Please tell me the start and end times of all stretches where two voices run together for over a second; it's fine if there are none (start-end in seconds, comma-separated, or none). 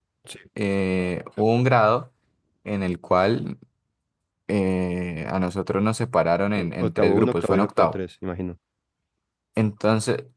6.6-8.0